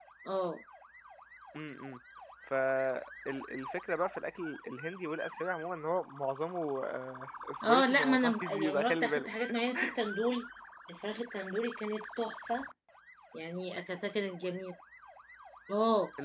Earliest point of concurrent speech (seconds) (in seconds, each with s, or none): 7.7 s